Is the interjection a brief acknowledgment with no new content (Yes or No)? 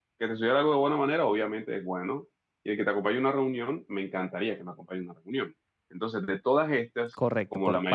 No